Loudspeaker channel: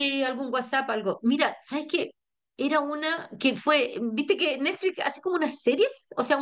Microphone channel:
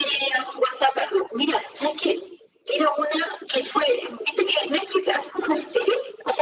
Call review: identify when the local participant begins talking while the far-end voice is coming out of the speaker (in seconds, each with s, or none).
none